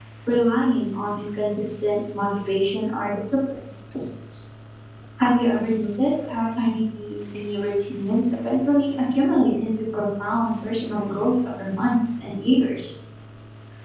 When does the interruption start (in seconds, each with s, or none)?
none